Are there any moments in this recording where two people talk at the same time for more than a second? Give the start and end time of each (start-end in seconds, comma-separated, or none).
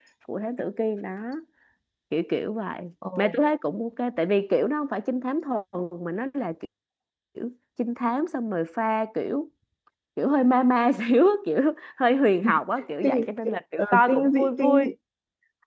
13.0-14.9